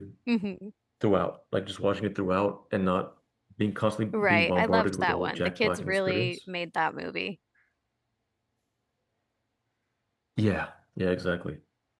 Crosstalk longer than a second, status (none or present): present